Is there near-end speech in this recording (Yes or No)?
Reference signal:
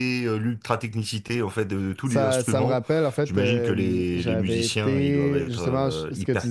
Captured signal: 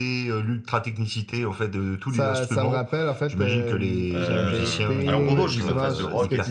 Yes